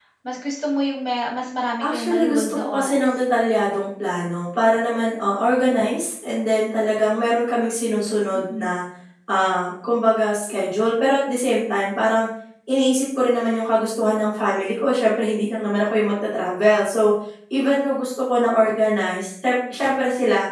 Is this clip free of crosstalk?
No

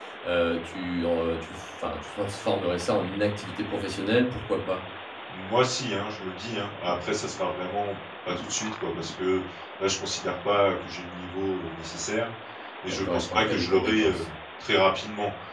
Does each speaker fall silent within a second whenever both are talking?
No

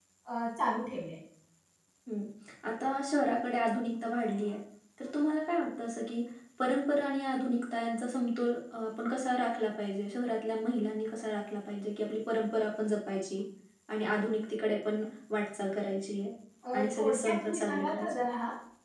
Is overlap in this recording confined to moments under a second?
No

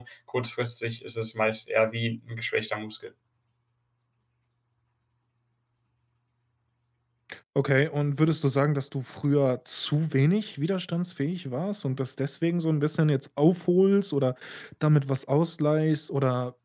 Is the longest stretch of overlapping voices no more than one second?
Yes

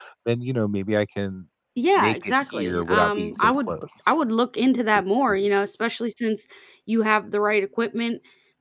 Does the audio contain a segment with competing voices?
Yes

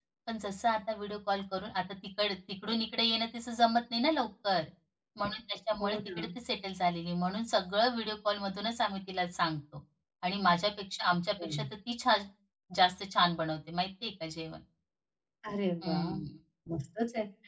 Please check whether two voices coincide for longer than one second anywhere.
No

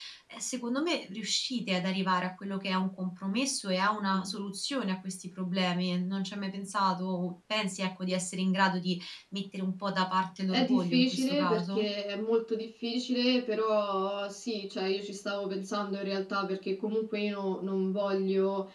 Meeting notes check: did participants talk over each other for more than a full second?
Yes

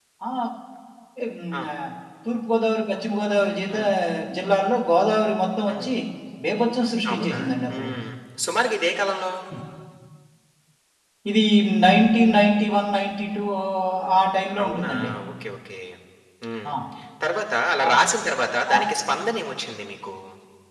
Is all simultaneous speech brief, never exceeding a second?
Yes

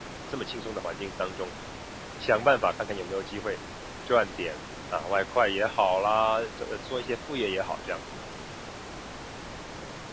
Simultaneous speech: No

